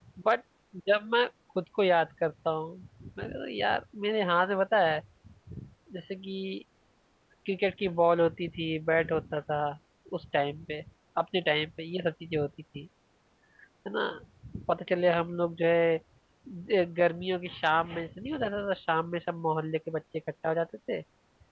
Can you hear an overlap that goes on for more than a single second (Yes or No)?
No